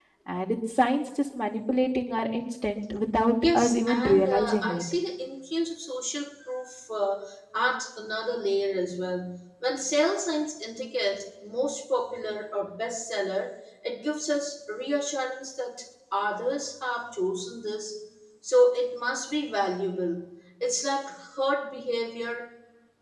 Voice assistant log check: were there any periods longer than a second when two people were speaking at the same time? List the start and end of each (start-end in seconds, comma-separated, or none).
3.4-4.8